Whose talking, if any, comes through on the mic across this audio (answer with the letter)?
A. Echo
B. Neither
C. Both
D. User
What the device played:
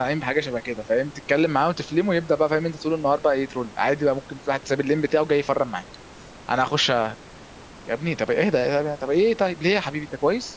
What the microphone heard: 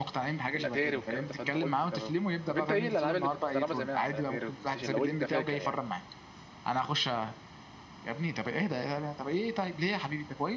C